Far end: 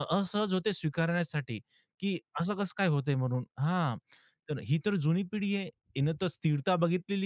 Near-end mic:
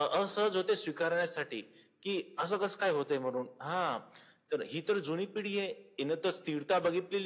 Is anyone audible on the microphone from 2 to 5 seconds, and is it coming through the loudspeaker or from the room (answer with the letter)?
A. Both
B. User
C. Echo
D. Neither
C